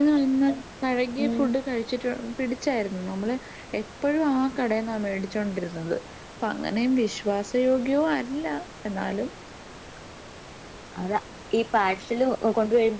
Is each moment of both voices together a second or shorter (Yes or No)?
Yes